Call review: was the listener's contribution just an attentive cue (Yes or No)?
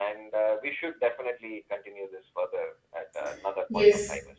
No